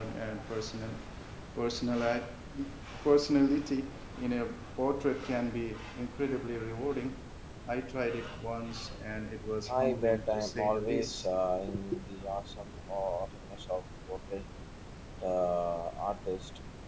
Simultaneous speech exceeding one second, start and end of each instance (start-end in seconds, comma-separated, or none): 9.7-11.3